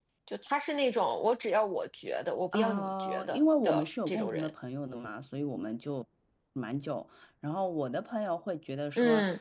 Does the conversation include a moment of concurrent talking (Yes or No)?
Yes